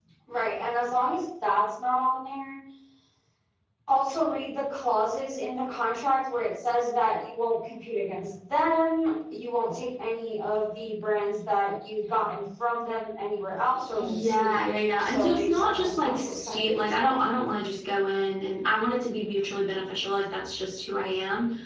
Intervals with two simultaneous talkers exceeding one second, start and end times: 13.7-17.2

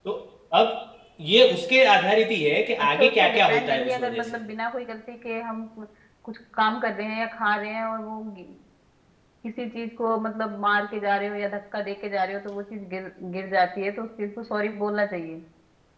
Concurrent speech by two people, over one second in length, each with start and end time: 2.8-4.4

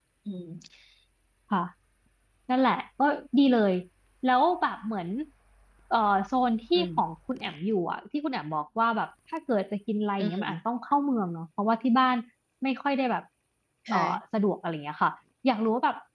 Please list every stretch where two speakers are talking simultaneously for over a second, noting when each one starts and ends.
none

